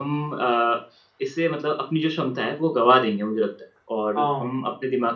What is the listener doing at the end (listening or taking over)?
listening